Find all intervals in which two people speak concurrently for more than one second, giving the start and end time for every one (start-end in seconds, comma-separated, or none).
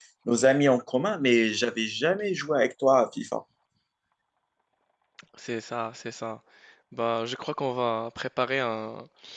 none